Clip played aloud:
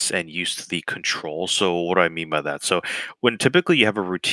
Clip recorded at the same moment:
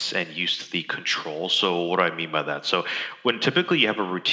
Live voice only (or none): none